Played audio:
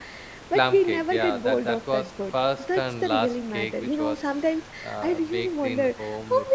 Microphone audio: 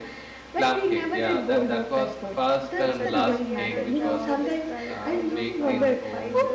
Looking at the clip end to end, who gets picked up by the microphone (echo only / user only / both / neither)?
both